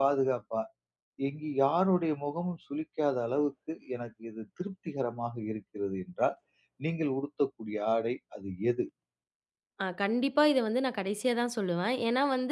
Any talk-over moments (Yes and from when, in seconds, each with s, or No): No